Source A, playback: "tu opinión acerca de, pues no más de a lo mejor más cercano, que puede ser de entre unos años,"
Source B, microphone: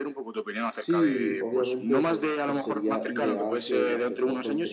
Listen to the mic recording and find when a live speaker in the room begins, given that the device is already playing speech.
0.7 s

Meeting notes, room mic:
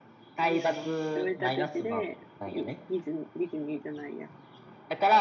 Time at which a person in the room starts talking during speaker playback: 0.4 s

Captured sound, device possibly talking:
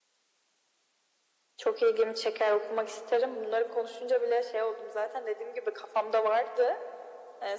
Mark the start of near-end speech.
none

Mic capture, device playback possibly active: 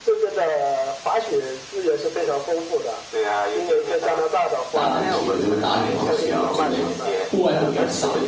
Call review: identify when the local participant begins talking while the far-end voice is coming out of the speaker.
4.7 s

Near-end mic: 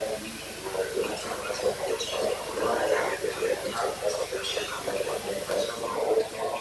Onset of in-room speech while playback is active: none

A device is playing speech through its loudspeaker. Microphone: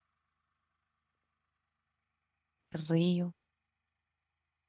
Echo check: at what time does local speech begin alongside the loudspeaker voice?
2.7 s

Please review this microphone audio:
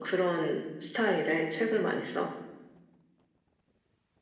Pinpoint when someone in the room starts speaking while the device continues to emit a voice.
none

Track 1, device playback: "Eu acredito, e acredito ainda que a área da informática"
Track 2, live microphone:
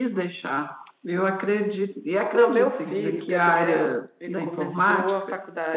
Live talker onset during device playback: 2.3 s

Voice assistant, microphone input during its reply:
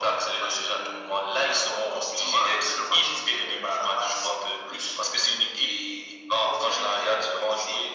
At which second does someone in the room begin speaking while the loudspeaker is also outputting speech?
none

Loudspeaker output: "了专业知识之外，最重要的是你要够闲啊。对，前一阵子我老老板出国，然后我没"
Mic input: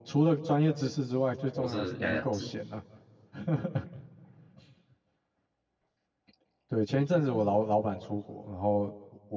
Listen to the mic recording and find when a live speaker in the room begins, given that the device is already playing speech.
1.5 s

